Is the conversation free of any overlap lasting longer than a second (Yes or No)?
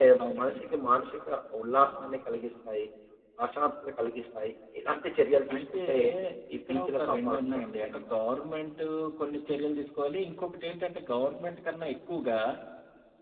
No